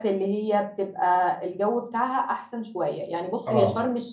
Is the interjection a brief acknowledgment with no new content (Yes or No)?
Yes